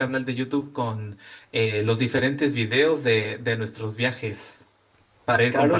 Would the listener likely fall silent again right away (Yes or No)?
No